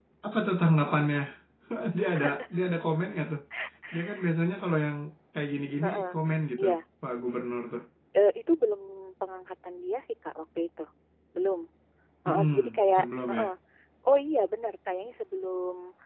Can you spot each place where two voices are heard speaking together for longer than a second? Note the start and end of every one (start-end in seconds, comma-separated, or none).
12.3-13.5